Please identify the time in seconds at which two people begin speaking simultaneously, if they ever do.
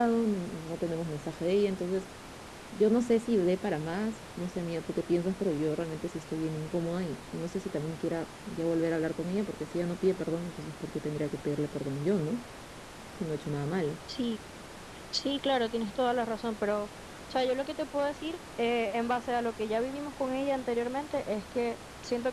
none

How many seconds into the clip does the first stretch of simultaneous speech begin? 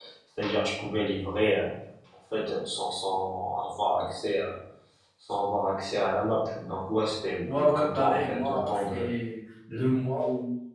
7.5 s

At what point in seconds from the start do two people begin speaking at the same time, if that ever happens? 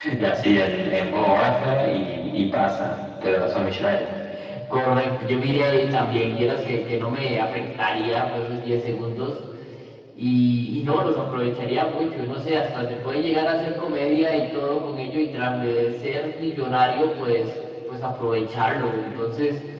none

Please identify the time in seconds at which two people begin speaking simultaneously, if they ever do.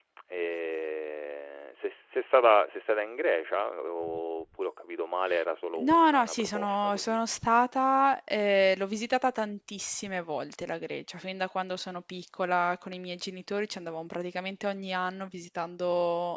5.8 s

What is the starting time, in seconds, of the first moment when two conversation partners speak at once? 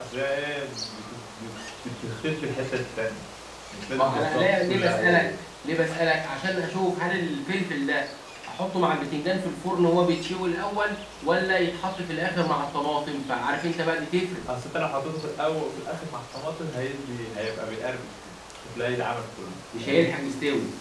4.0 s

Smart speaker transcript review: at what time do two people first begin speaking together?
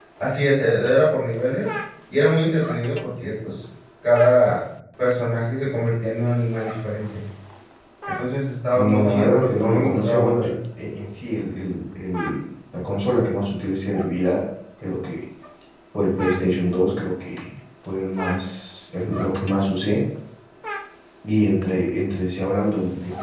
8.8 s

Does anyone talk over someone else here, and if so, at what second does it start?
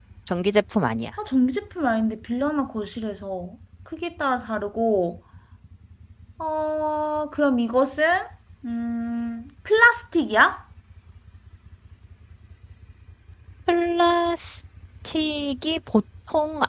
none

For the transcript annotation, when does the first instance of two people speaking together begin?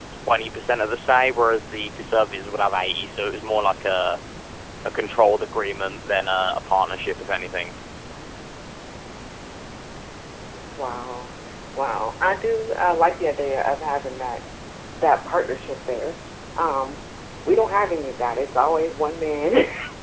none

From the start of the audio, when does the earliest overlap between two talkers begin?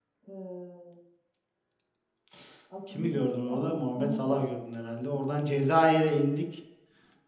2.9 s

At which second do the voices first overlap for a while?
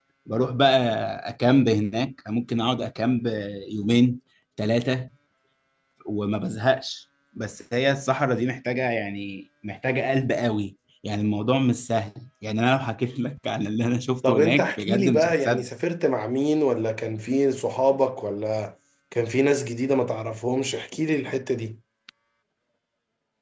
14.2 s

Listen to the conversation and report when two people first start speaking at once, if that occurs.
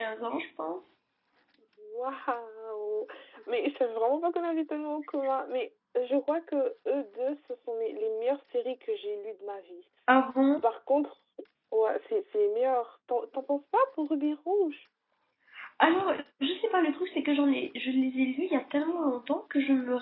none

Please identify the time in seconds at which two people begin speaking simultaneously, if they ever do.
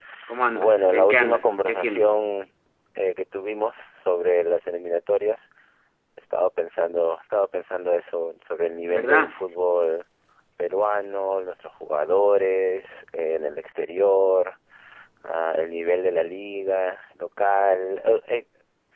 0.5 s

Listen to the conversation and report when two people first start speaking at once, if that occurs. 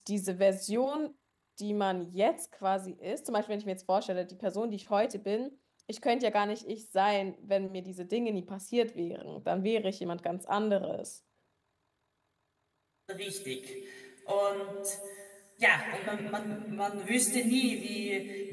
none

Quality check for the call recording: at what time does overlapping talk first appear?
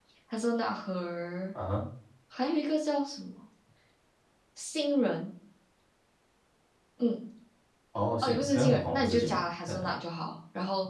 8.2 s

